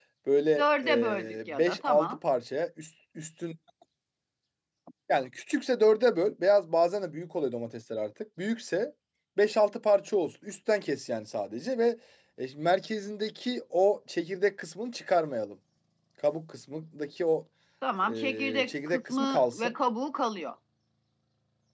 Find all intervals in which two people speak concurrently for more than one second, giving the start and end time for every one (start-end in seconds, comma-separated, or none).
0.6-2.2, 18.1-19.7